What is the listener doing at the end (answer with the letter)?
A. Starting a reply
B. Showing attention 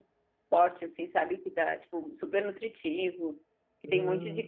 B